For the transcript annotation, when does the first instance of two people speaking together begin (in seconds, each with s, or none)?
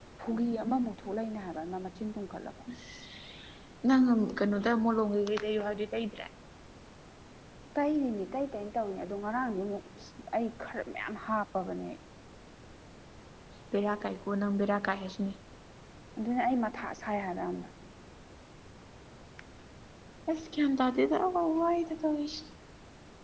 none